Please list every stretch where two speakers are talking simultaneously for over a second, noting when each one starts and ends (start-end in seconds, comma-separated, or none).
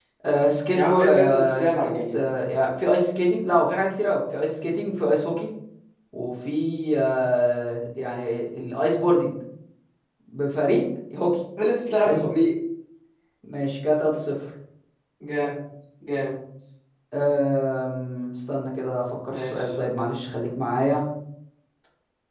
0.7-2.2